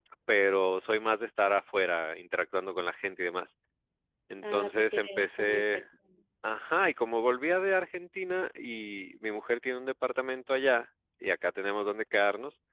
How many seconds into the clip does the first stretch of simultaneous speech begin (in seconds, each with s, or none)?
4.4 s